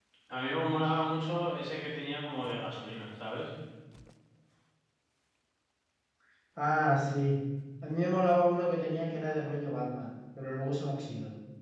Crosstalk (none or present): none